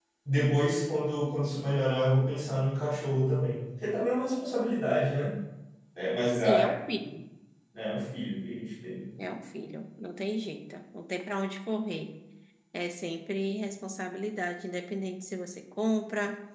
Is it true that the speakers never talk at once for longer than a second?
Yes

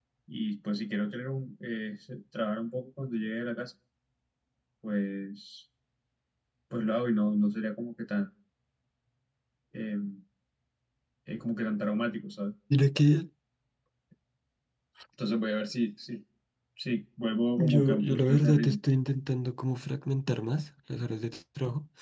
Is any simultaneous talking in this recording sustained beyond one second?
Yes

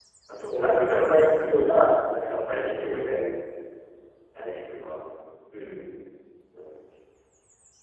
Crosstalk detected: Yes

